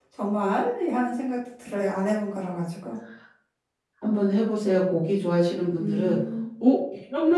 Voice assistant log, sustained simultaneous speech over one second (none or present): none